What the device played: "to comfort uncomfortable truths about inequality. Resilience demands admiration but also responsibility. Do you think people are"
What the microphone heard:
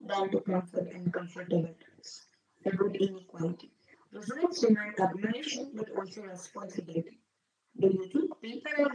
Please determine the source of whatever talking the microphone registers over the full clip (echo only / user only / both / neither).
echo only